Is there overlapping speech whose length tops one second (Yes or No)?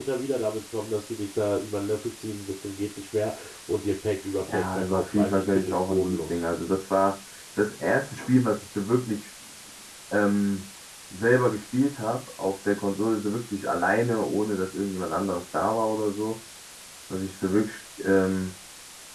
Yes